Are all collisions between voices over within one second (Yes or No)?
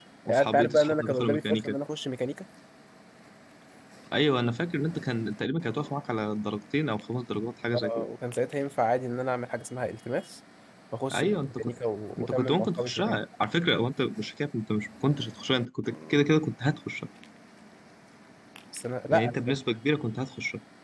No